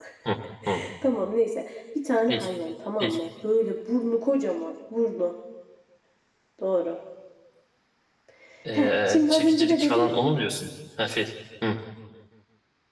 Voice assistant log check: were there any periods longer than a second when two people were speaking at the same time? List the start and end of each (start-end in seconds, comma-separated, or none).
8.7-10.1